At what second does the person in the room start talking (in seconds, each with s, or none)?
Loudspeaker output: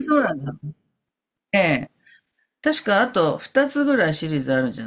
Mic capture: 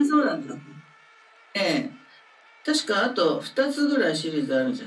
none